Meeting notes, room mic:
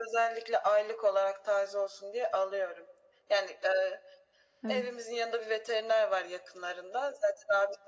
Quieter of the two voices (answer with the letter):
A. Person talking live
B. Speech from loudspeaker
A